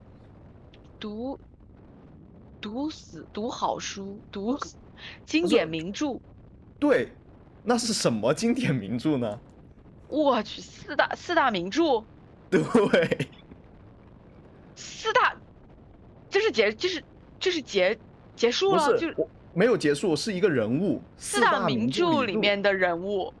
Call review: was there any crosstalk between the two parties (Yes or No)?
Yes